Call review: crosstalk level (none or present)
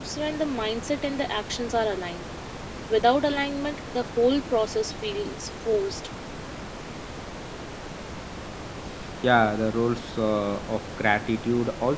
none